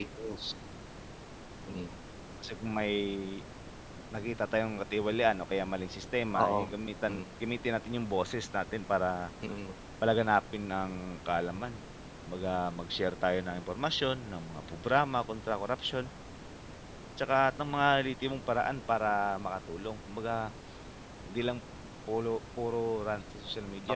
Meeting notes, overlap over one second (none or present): none